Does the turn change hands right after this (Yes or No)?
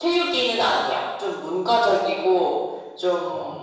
No